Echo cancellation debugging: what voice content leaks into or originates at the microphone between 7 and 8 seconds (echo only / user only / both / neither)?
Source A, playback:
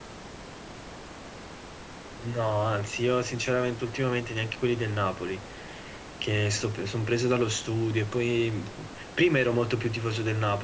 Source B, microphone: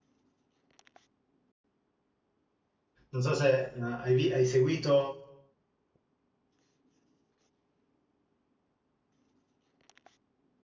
neither